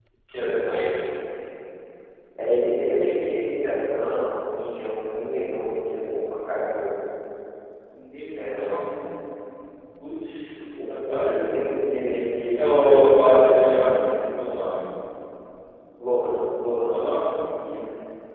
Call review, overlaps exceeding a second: present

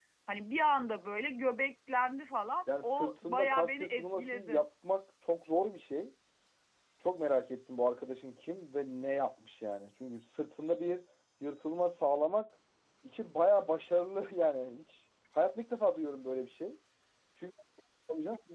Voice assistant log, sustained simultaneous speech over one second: present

